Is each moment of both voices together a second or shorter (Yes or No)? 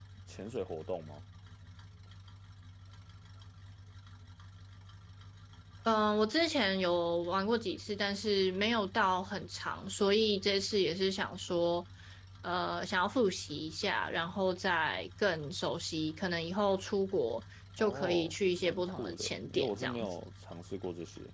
No